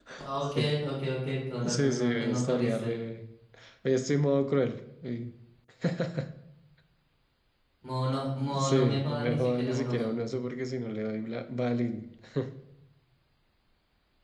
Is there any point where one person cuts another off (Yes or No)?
Yes